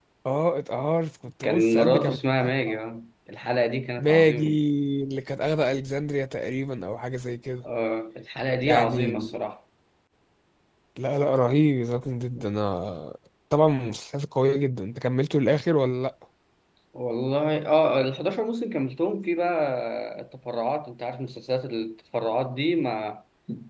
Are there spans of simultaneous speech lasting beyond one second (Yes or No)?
Yes